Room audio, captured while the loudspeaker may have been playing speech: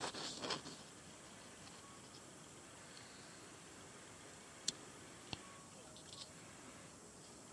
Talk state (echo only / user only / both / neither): neither